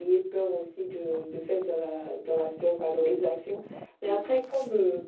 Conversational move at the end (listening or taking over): listening